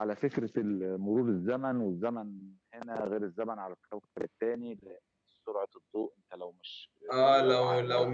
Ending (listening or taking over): taking over